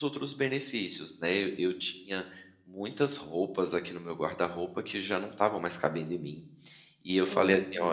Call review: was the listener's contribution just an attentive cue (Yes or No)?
Yes